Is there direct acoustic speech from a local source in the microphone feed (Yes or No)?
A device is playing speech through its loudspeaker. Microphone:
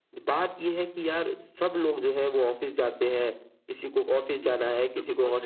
Yes